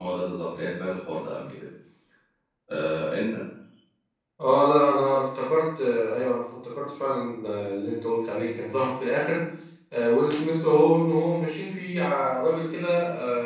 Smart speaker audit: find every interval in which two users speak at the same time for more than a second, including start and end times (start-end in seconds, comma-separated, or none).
none